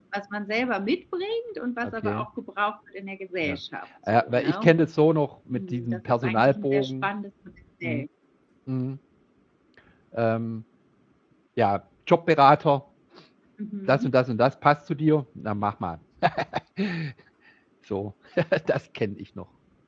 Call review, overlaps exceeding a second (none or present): present